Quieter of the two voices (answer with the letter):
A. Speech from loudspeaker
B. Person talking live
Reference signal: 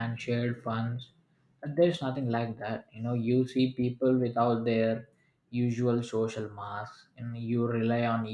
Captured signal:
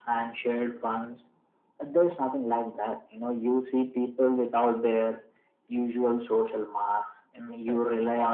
B